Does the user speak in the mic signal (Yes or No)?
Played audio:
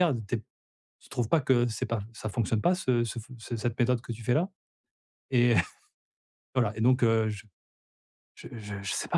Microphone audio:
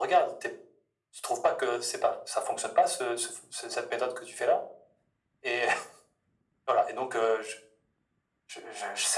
No